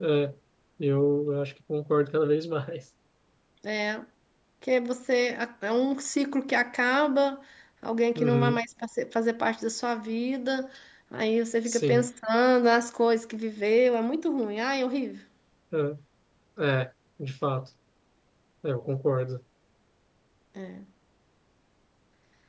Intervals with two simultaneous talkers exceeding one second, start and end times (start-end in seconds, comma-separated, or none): none